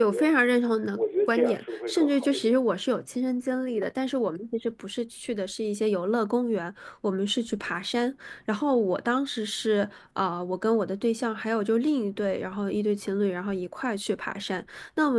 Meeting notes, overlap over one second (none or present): present